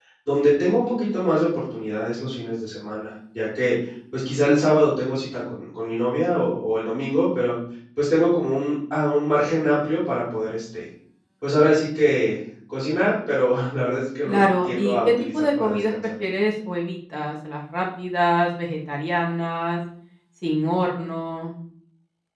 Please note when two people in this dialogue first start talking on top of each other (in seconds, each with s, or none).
14.2 s